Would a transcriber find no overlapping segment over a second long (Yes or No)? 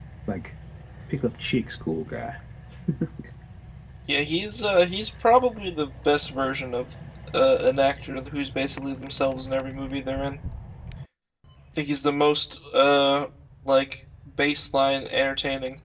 Yes